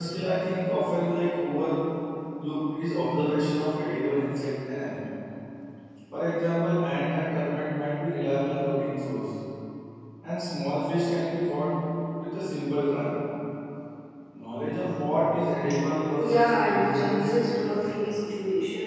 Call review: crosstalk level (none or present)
present